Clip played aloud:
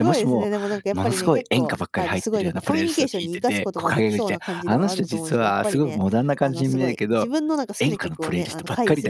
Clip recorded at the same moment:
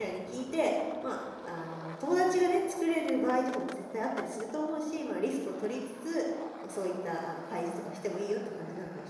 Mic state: user only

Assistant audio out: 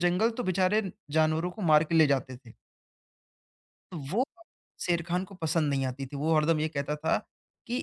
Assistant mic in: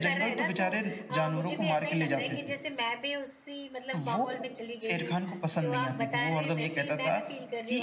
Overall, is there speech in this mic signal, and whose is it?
both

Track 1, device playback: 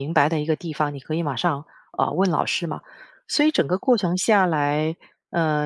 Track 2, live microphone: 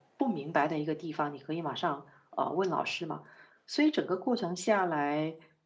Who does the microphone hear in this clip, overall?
echo only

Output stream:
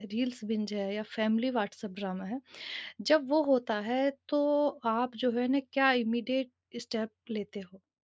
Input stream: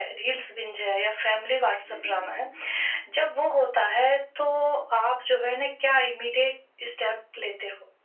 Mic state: both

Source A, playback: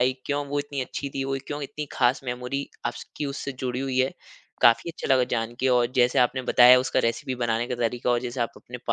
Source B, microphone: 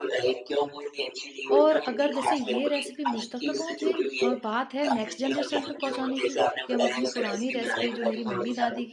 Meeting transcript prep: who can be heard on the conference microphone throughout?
both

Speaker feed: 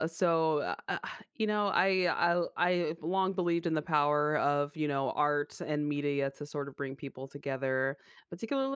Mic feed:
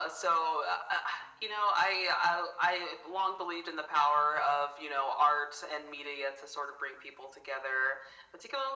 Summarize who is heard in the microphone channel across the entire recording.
echo only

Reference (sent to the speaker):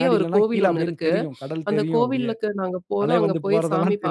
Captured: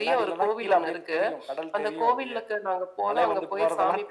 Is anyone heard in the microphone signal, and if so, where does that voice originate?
echo only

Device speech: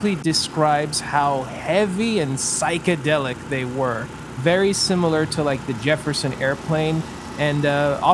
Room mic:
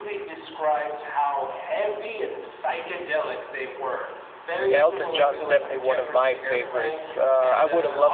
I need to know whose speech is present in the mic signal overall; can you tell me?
both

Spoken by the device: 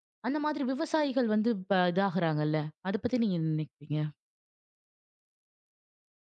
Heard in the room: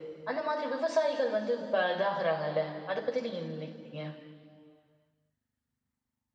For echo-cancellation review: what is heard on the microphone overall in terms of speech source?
echo only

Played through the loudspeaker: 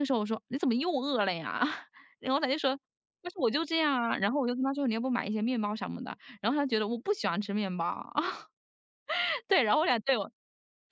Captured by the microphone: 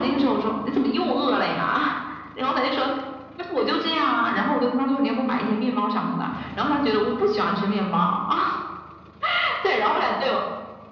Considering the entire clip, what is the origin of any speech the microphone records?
echo only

